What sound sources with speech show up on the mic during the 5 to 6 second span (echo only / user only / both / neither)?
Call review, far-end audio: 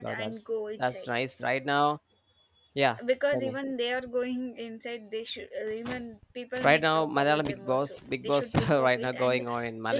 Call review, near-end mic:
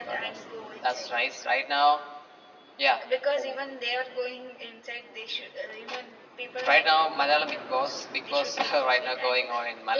echo only